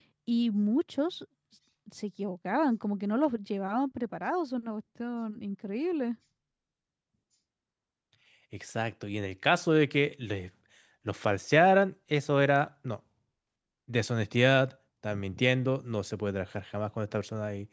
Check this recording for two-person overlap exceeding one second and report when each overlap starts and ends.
none

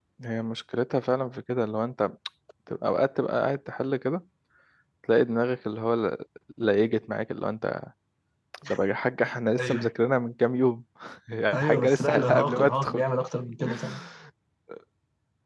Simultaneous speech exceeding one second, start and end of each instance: 11.5-13.0

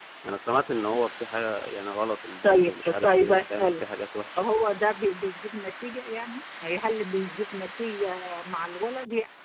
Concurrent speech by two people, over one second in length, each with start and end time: 2.4-3.8

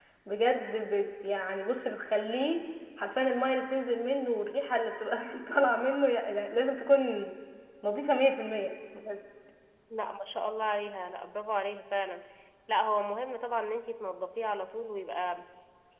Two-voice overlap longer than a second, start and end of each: none

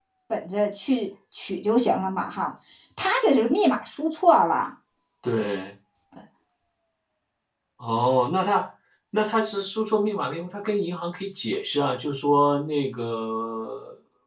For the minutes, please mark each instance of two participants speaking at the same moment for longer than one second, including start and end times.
none

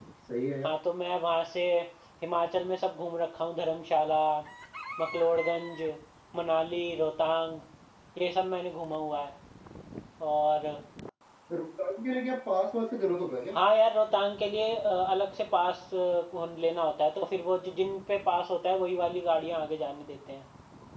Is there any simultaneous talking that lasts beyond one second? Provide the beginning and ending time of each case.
none

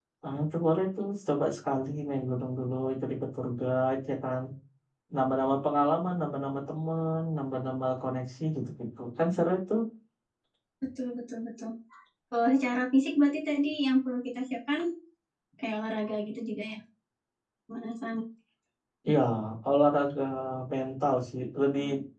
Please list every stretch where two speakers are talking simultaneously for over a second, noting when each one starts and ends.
none

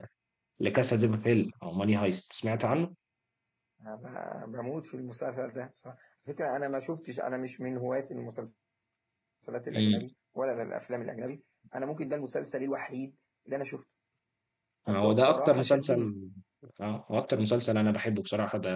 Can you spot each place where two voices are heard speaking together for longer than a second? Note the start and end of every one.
14.9-16.1

